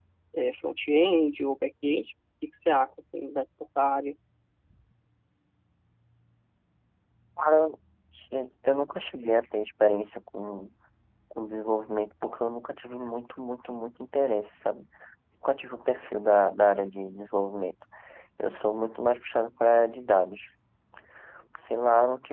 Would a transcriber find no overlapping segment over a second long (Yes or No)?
Yes